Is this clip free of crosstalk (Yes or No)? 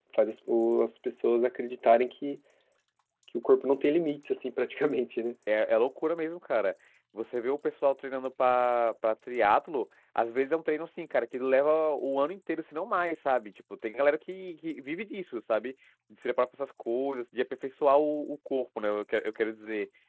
Yes